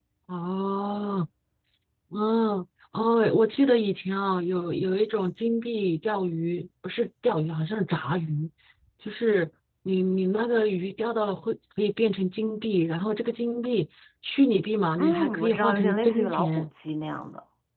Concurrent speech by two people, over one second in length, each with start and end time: 15.0-16.7

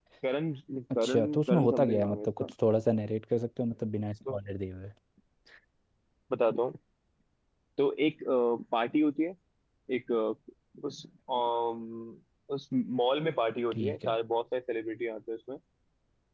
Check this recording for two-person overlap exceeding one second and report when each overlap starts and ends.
1.0-2.5

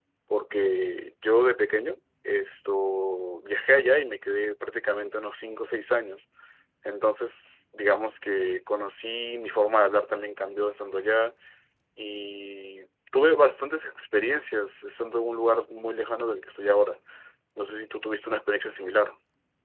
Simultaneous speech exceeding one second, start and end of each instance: none

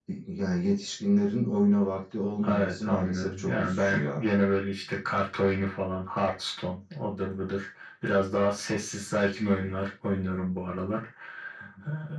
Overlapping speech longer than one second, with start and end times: 2.5-4.2

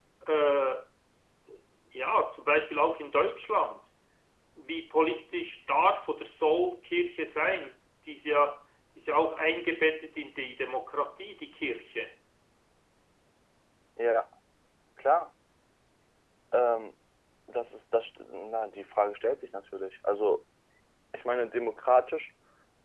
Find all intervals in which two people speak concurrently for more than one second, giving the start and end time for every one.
none

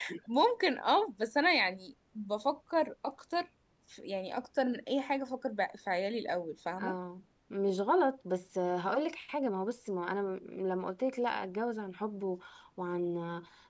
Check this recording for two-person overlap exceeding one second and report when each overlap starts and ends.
none

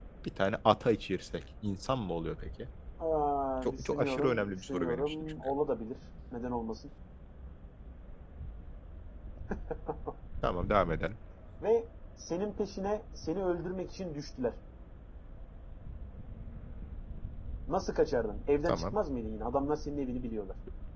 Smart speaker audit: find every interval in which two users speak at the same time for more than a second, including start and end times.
3.8-5.3

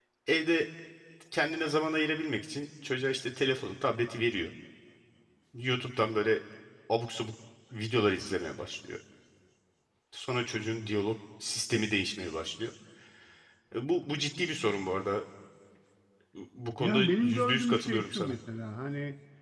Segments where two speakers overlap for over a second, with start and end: 16.8-18.3

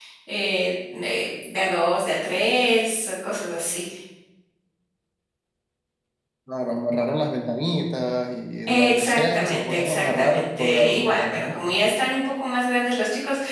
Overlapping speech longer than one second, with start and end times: 8.7-11.6

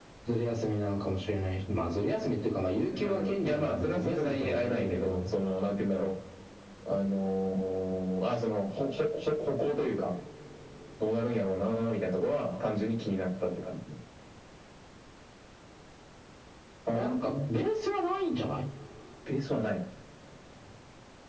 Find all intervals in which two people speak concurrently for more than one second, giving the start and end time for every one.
3.0-5.3

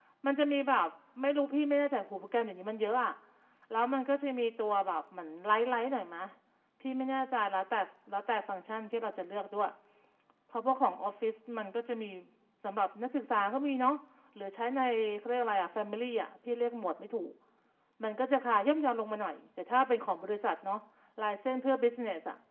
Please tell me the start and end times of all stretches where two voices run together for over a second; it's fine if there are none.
none

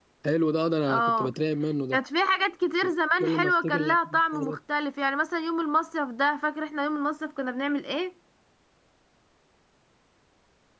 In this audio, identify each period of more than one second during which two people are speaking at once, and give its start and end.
3.2-4.6

